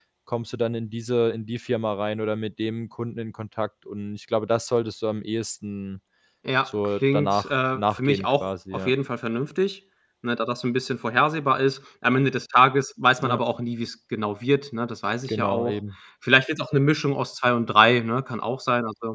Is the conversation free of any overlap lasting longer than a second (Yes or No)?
No